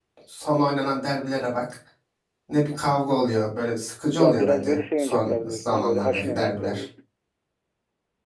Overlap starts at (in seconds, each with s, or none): 4.2 s